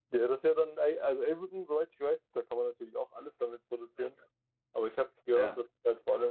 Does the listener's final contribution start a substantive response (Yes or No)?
No